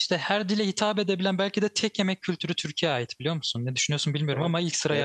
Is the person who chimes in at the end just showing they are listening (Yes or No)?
No